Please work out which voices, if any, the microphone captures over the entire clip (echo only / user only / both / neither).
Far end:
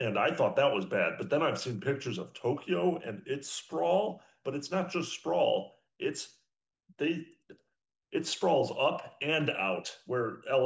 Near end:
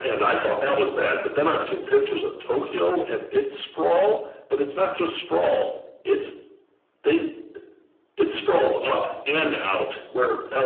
echo only